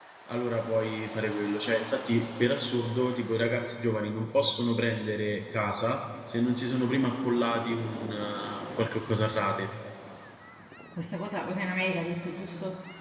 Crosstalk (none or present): none